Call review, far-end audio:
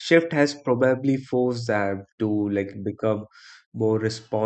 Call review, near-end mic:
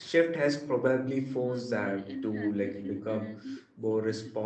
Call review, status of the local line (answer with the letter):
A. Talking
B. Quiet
A